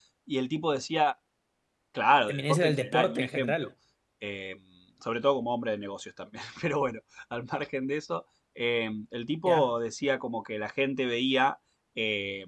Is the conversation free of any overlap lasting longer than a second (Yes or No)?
No